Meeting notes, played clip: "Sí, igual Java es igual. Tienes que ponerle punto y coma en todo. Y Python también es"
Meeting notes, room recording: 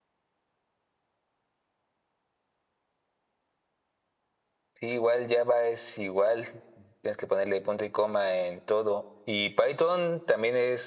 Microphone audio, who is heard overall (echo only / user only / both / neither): echo only